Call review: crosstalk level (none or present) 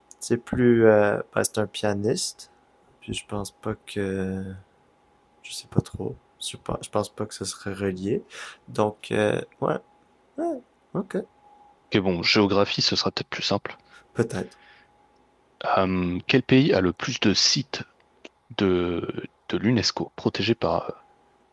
none